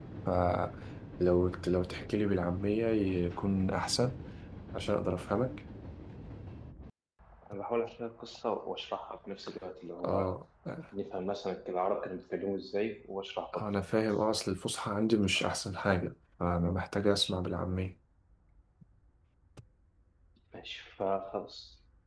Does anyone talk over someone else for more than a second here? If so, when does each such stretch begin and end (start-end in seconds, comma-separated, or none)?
none